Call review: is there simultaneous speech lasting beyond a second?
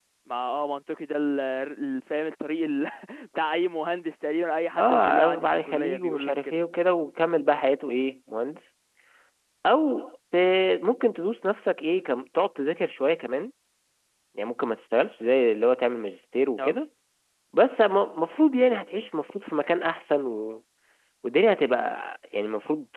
Yes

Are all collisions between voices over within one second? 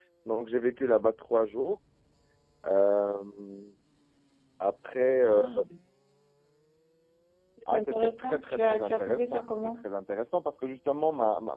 No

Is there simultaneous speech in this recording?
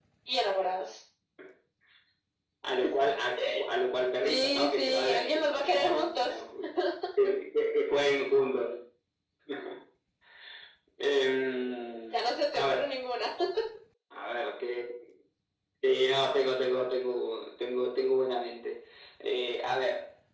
Yes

